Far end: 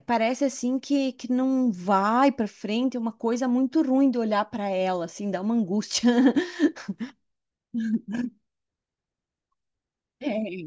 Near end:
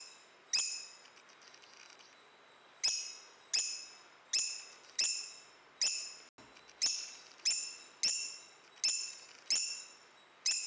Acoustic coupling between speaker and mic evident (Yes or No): No